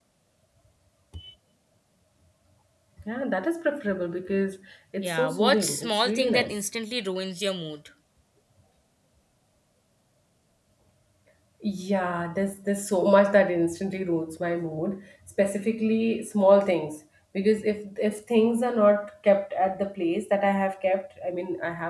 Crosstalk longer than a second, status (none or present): present